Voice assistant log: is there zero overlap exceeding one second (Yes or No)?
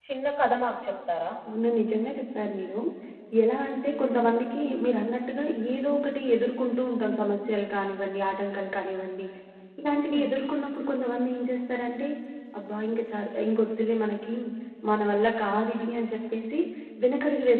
Yes